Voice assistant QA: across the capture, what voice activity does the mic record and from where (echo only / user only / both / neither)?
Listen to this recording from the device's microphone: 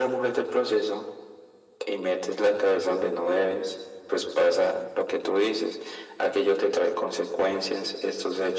echo only